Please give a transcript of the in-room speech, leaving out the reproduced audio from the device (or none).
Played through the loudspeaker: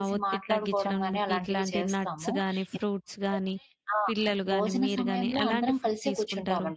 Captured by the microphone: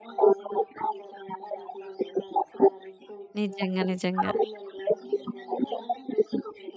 నిజంగా, నిజంగా.